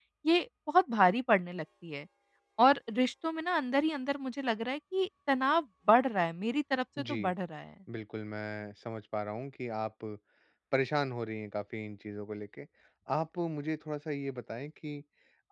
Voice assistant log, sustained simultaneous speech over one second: none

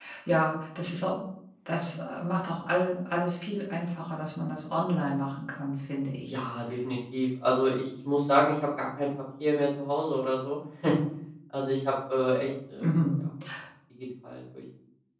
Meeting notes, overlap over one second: none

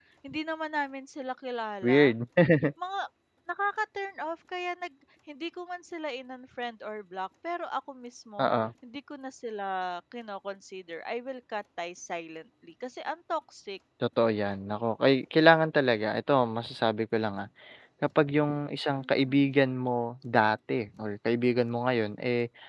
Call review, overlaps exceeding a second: none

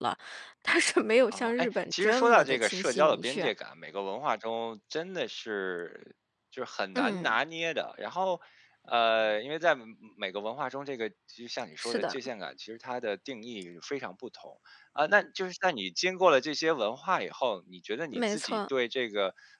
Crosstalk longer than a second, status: present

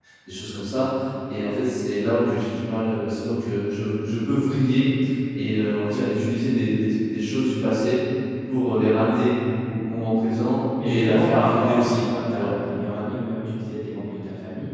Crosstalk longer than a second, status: present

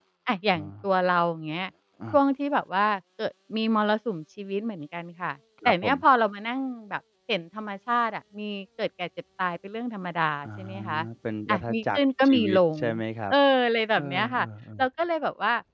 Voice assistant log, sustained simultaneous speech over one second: present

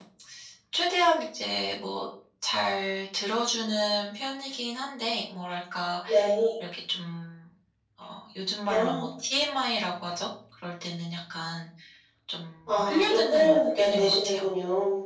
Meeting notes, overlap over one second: present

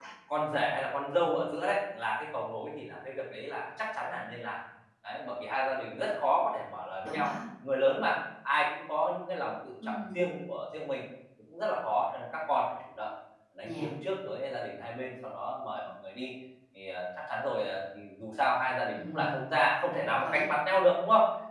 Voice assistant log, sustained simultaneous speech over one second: none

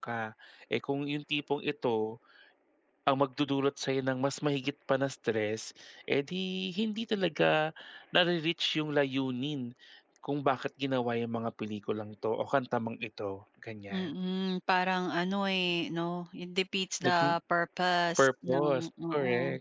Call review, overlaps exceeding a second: present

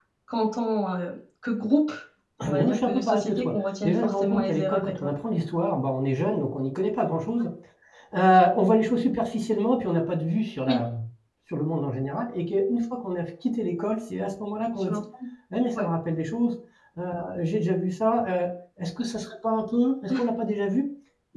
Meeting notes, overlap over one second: present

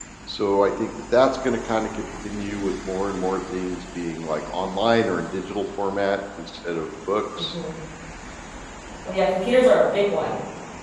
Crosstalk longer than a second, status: none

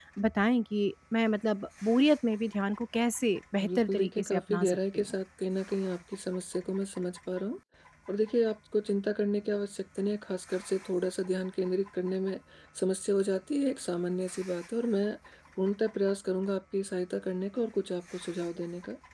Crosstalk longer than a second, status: present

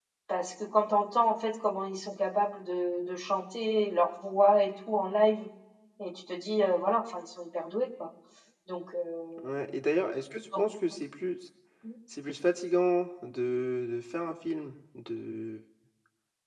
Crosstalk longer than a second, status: none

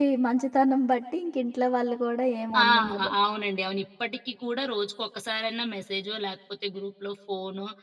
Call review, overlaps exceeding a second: none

